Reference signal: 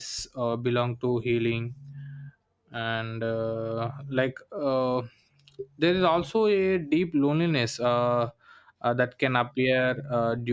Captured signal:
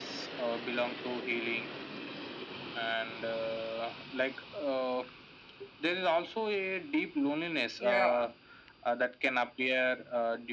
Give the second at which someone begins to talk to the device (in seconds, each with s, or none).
7.8 s